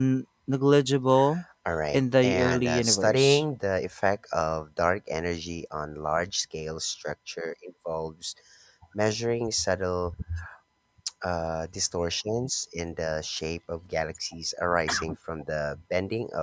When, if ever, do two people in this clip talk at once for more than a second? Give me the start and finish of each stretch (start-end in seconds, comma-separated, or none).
1.9-3.4